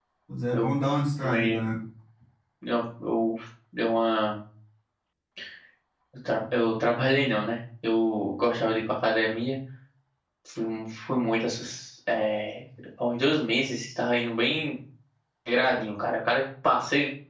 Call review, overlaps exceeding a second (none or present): none